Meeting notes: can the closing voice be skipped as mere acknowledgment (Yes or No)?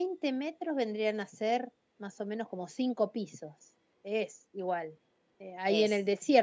Yes